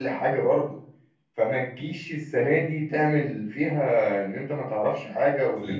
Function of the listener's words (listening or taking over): listening